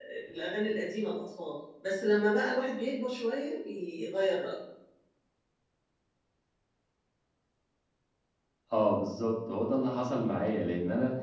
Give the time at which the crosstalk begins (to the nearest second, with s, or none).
none